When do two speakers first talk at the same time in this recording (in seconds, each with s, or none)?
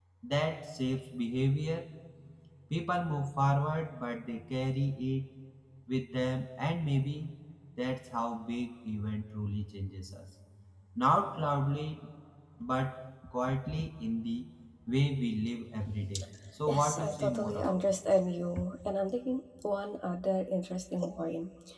16.7 s